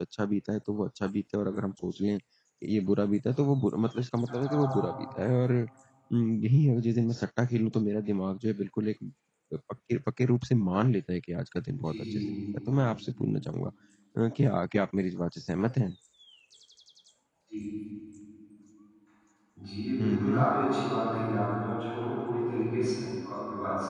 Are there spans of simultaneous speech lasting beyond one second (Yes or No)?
No